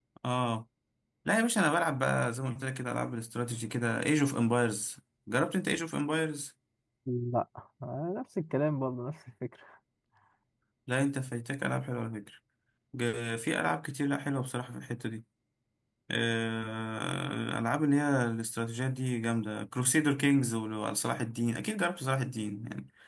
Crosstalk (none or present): none